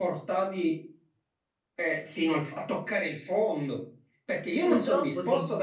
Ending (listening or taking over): listening